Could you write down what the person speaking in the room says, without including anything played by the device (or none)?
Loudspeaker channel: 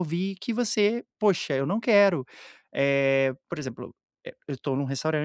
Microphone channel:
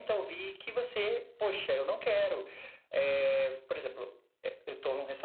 none